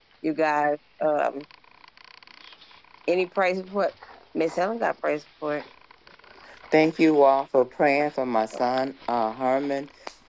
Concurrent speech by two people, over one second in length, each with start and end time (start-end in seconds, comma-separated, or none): none